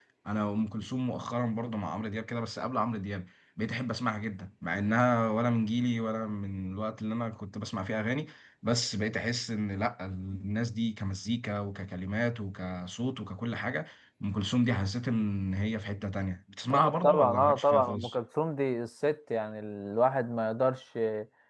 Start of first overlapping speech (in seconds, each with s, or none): 16.7 s